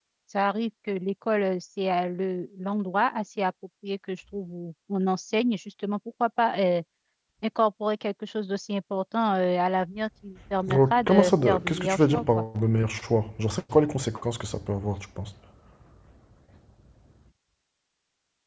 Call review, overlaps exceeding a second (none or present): present